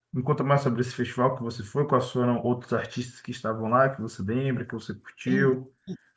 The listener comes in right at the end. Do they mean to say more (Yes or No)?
Yes